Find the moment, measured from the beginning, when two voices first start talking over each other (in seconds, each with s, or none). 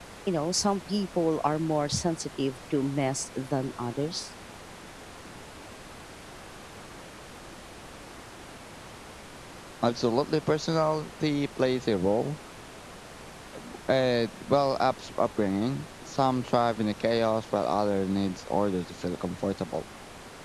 none